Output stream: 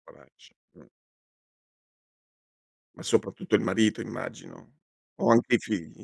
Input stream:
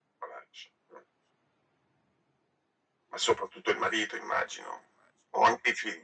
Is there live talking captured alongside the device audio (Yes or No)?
No